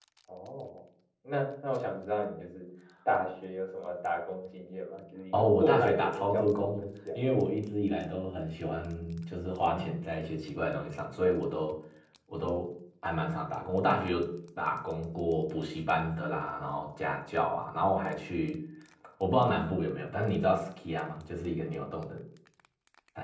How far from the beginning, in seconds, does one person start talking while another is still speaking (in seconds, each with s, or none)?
5.3 s